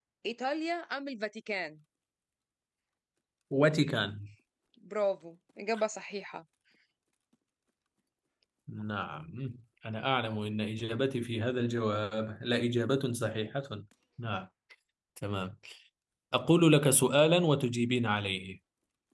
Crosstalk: none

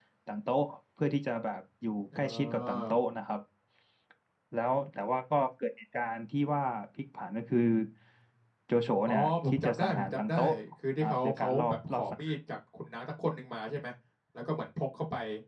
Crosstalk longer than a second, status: present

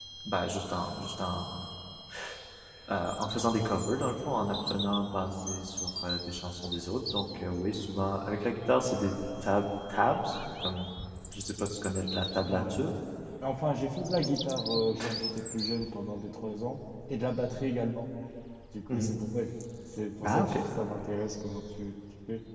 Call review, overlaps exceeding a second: none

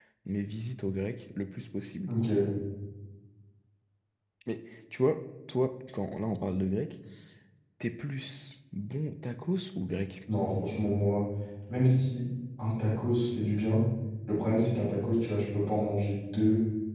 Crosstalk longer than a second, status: none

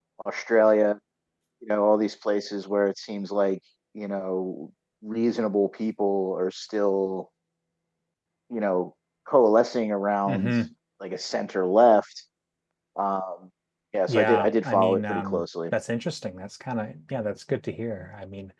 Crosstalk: present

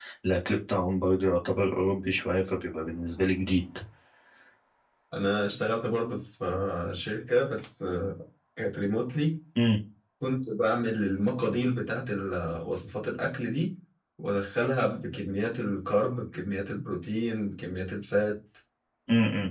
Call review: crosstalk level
none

